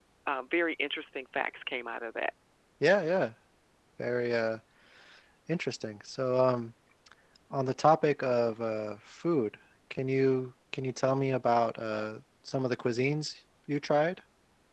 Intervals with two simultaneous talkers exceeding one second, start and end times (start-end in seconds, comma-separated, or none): none